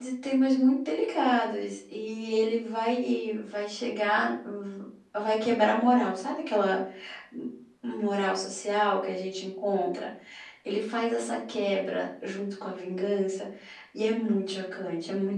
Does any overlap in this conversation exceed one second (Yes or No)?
No